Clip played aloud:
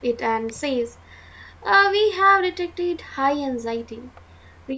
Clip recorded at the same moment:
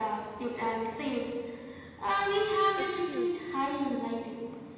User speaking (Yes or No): Yes